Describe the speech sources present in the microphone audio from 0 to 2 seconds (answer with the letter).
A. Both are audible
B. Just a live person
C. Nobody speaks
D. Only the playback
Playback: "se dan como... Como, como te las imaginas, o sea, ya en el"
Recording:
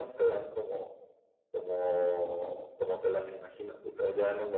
D